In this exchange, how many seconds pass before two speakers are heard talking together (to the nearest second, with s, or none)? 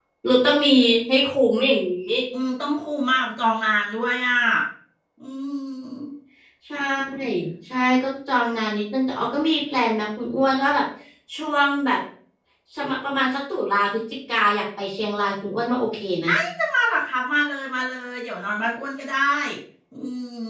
none